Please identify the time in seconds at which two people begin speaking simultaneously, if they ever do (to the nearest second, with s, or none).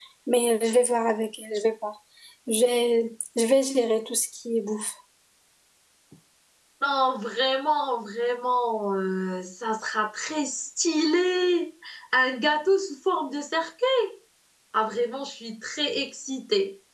none